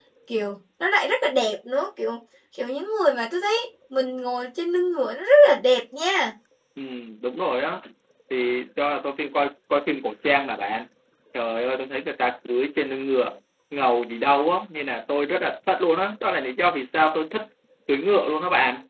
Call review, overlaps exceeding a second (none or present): none